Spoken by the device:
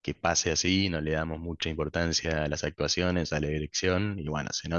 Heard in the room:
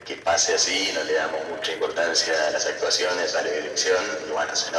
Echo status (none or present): present